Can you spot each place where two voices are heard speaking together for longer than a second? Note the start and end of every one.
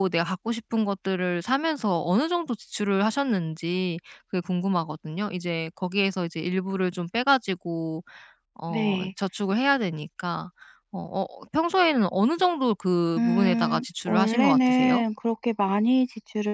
13.2-15.0

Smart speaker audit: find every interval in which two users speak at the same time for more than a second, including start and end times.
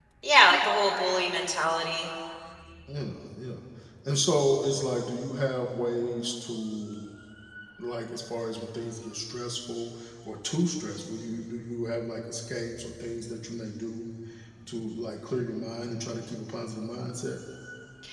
none

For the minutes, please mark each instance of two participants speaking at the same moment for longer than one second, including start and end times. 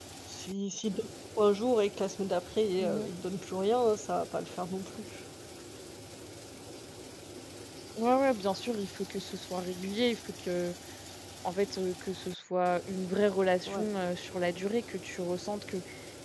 none

